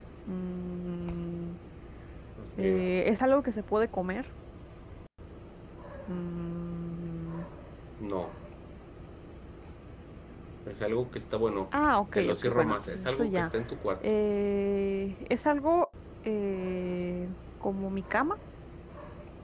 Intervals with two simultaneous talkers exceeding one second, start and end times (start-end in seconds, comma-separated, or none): 12.1-13.5